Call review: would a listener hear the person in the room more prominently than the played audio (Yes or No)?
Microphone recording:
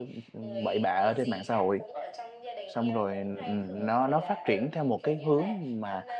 Yes